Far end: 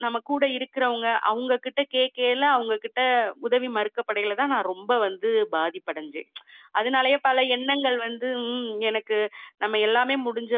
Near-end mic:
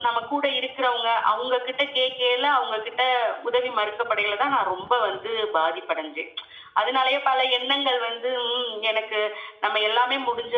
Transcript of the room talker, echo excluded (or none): none